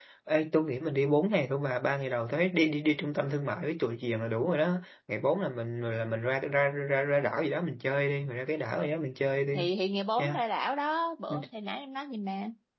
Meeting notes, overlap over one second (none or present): none